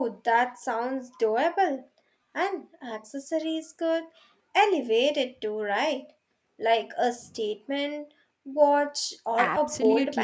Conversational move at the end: taking over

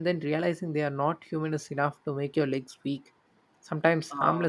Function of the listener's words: listening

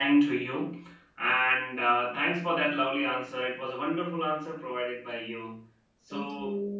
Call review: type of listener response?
listening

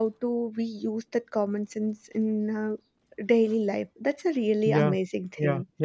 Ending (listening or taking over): taking over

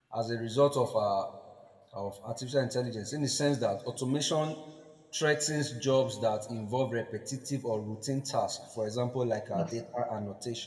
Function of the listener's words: listening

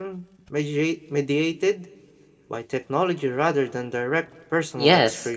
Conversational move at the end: taking over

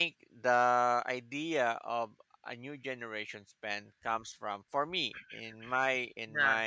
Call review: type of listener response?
listening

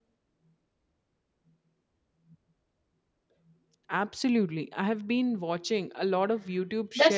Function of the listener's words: taking over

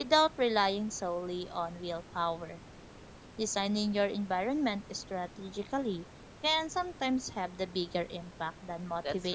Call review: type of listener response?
taking over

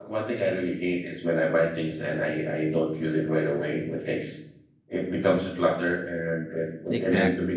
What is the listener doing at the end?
listening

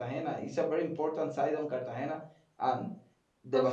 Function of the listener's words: listening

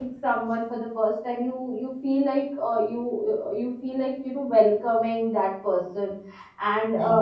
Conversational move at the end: listening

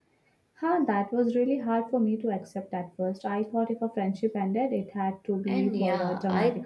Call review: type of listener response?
taking over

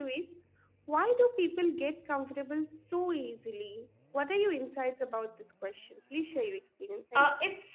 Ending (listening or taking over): taking over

